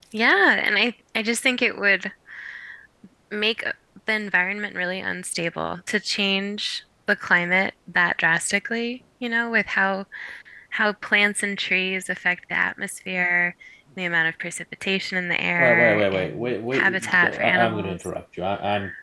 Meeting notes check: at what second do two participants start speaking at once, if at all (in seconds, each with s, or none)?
15.6 s